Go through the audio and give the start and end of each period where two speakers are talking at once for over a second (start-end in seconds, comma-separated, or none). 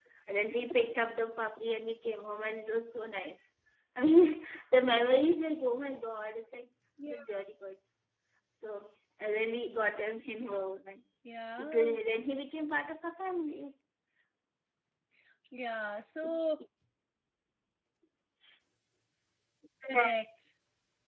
none